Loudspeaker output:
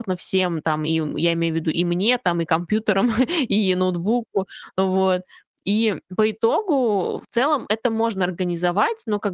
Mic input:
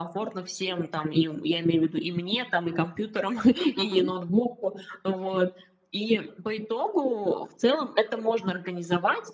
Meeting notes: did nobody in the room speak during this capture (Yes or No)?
No